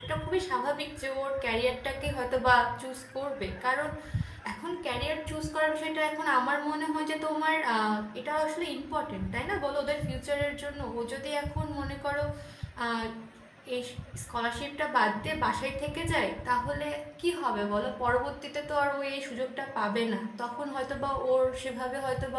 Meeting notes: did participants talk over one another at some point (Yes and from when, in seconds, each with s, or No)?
No